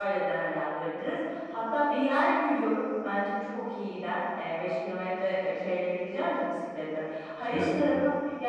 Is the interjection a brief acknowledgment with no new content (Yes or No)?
Yes